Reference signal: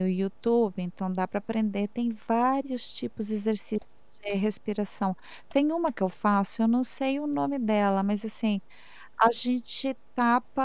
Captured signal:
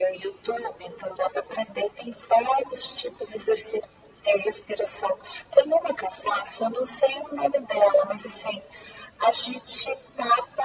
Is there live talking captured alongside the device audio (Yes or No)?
No